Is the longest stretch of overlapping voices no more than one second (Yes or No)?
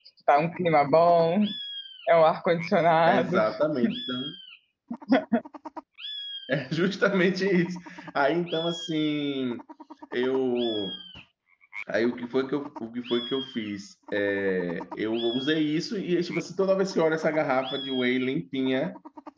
Yes